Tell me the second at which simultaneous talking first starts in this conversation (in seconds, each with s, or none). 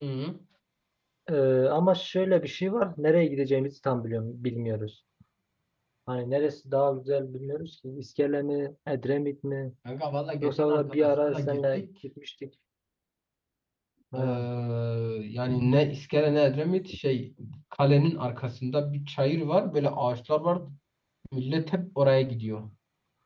10.4 s